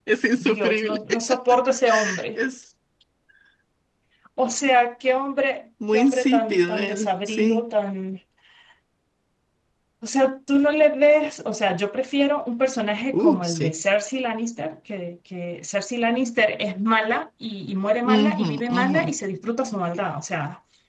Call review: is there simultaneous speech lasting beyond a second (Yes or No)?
Yes